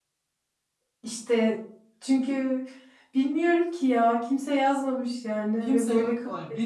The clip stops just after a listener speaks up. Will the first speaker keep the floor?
No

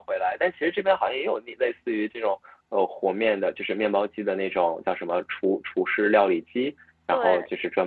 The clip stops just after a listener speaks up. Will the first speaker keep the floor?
Yes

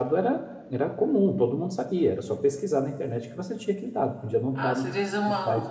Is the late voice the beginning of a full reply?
Yes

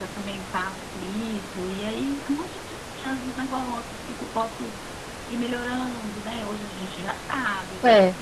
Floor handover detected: No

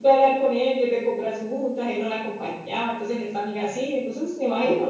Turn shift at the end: Yes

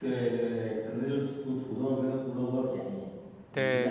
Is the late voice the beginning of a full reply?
No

